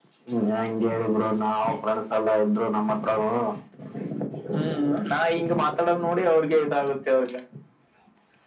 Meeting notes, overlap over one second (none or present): none